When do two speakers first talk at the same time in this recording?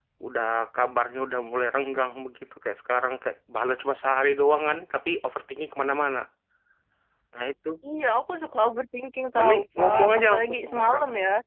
9.3 s

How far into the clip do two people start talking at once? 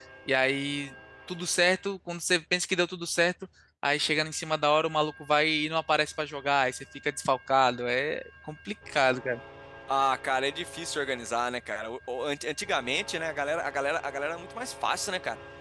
none

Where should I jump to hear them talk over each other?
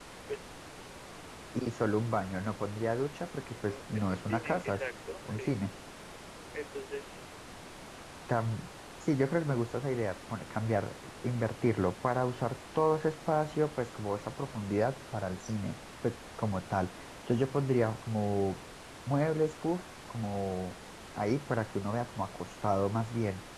3.7 s

